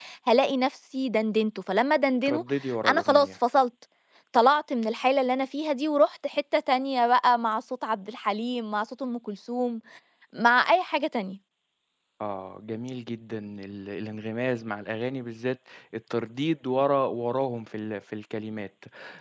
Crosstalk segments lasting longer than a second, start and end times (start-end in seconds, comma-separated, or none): none